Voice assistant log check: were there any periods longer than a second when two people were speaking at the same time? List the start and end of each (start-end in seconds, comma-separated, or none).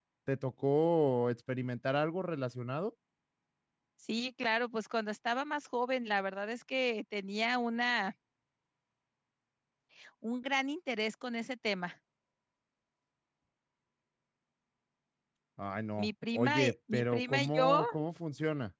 16.0-17.8